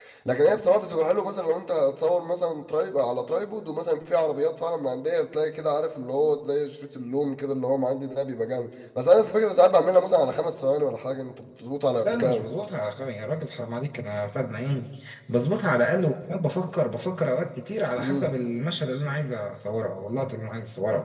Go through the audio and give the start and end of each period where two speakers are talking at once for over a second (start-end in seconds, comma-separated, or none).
none